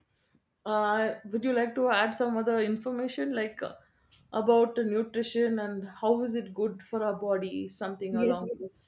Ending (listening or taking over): taking over